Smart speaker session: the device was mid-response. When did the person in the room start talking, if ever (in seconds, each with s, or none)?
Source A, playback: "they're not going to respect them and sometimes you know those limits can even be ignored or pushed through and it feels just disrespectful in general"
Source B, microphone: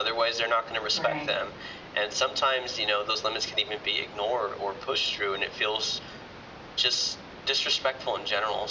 0.9 s